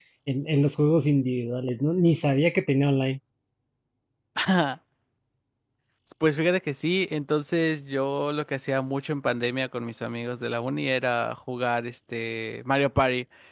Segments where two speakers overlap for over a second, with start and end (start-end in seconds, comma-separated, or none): none